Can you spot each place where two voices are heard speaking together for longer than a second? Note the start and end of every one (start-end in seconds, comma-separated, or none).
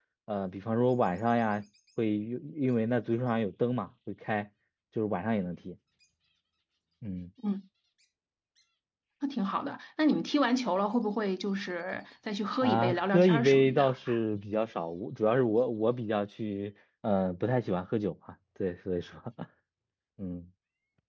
12.6-13.9